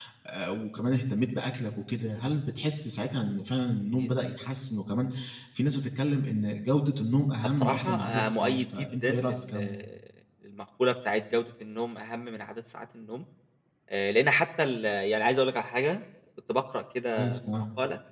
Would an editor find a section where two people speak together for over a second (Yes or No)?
Yes